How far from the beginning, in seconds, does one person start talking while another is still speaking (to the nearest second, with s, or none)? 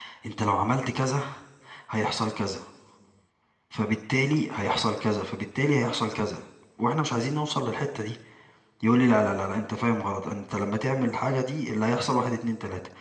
none